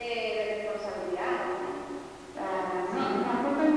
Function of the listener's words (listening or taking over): listening